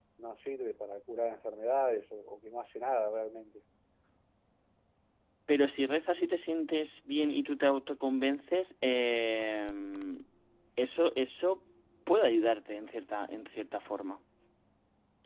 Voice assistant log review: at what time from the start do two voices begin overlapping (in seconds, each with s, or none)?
none